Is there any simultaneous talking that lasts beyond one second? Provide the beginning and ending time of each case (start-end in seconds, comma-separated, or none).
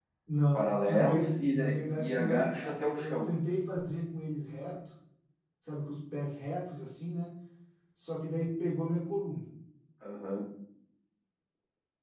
0.5-3.3